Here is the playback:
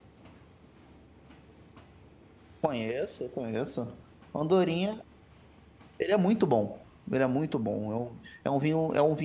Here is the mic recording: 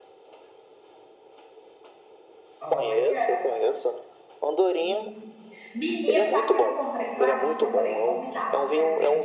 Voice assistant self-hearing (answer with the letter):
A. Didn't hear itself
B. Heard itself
B